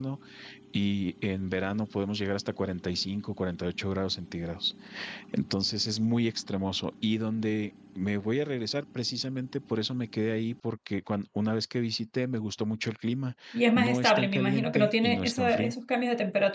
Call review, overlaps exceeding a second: present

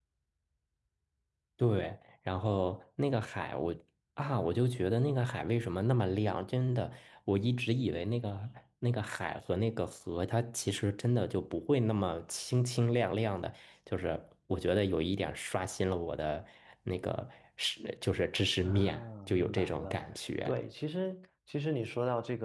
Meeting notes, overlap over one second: present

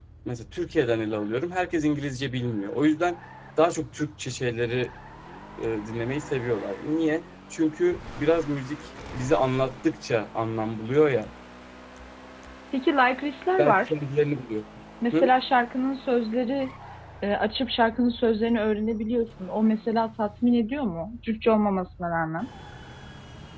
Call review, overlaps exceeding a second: none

